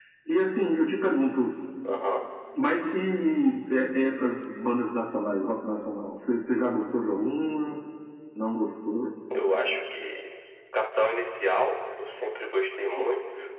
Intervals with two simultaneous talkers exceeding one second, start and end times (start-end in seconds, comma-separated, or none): none